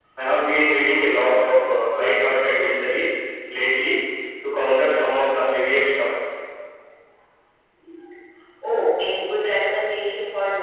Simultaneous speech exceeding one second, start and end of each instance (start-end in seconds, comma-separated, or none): none